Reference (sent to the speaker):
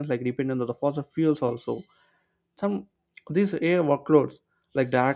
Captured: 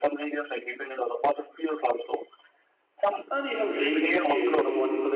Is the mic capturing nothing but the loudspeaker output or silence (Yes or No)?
No